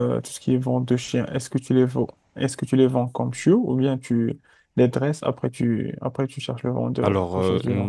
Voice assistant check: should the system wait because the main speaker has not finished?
No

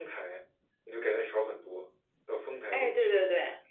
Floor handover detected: Yes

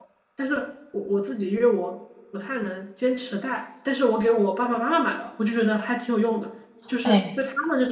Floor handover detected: No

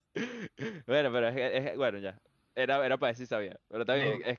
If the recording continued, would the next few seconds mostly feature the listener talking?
No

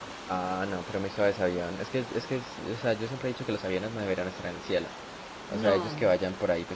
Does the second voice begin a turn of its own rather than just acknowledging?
No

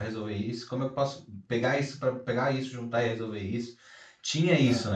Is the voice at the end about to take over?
No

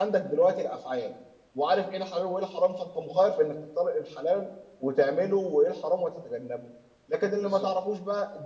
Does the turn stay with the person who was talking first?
Yes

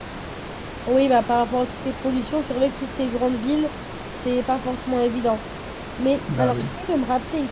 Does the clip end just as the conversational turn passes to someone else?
No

